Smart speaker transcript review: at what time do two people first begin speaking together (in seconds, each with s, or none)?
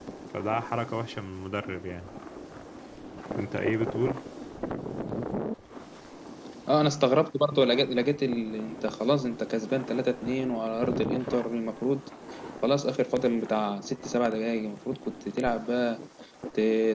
none